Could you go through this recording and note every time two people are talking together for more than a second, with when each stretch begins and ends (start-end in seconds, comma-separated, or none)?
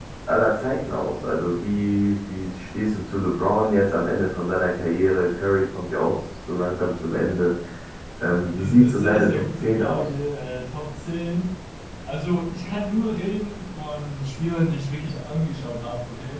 8.5-10.1